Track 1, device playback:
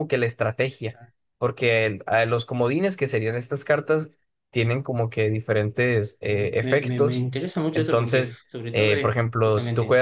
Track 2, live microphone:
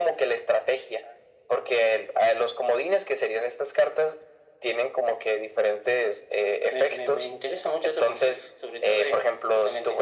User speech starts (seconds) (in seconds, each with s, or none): none